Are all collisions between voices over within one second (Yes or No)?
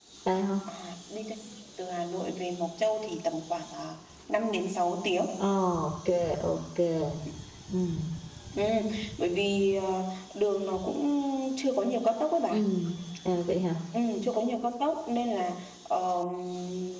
Yes